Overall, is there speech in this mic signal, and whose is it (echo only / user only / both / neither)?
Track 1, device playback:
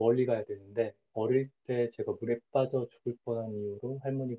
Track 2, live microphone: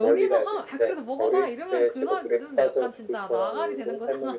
both